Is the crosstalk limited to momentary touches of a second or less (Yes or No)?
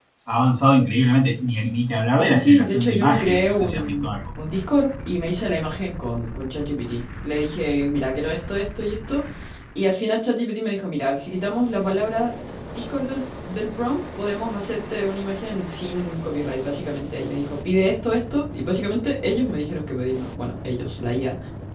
No